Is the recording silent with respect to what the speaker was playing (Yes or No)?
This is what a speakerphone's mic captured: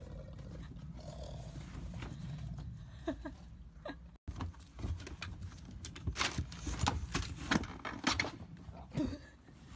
Yes